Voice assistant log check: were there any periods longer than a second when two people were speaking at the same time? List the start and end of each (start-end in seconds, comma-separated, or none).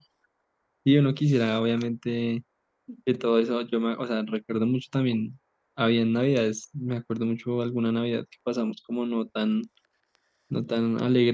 none